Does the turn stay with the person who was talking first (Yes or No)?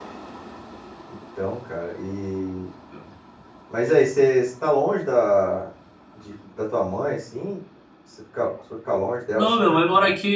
No